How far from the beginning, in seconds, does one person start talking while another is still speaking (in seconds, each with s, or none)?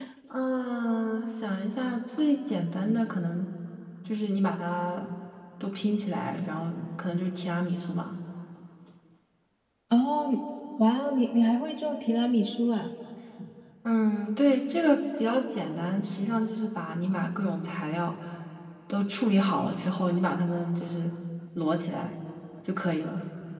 none